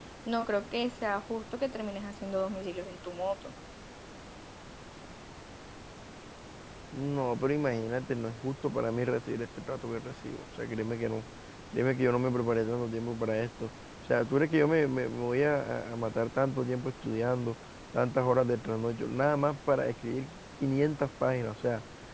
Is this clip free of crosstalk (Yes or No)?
Yes